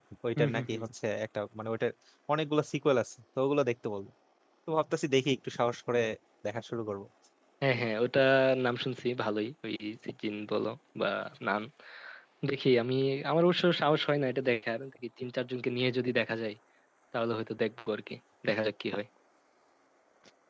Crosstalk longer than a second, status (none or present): none